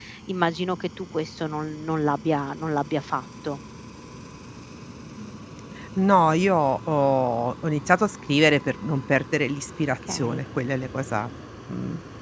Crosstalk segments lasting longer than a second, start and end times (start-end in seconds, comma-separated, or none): none